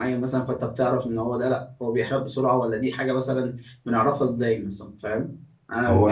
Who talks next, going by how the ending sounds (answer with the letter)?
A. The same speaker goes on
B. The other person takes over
A